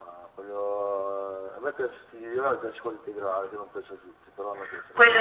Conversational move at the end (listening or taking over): taking over